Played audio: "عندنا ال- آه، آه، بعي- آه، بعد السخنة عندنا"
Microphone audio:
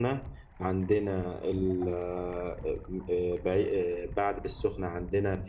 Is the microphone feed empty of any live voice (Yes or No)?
Yes